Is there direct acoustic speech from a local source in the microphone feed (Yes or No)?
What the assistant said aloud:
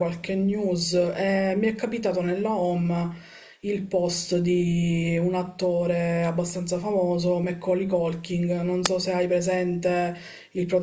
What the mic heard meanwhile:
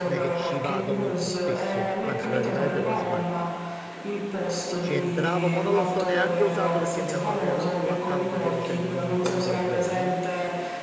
Yes